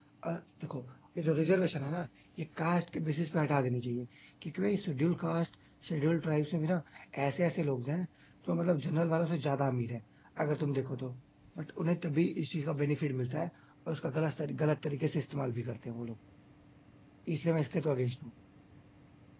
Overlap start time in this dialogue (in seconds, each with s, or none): none